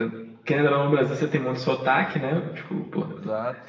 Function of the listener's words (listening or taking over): listening